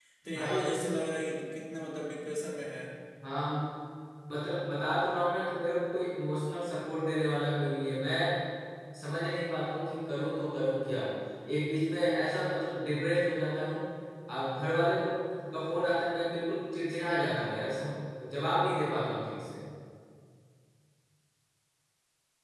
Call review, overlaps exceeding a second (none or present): none